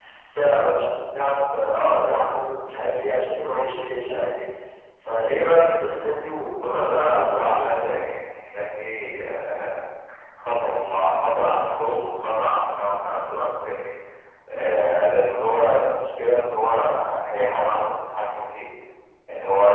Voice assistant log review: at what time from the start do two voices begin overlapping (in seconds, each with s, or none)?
6.6 s